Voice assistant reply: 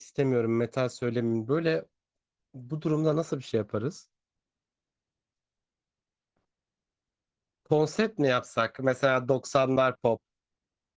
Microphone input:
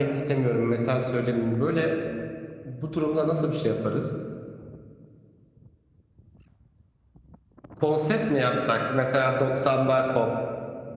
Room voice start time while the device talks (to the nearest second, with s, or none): none